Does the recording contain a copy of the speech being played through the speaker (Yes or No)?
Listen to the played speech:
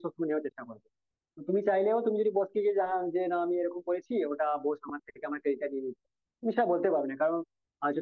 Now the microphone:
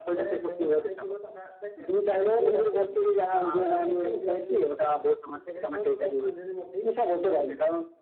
Yes